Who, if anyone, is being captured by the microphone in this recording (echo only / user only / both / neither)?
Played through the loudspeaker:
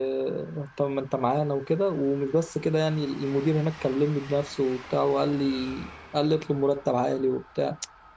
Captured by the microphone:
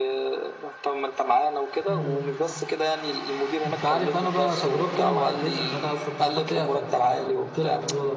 both